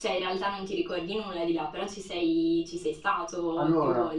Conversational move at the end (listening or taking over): taking over